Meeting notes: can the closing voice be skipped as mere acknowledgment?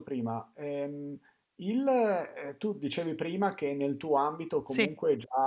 Yes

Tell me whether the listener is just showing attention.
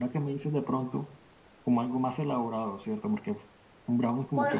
No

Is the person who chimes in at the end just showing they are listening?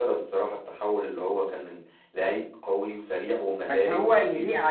No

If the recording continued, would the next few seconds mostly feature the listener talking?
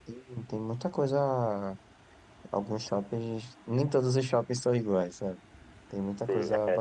Yes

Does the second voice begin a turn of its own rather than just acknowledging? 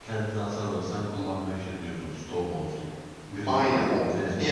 Yes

